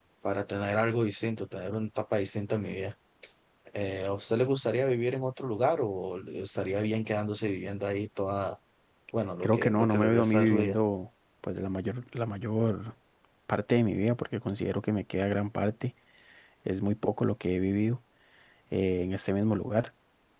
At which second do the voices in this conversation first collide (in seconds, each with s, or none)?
9.4 s